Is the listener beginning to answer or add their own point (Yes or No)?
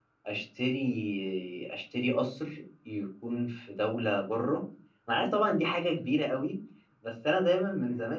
No